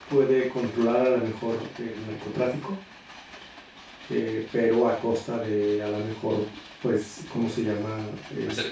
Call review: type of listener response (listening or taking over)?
taking over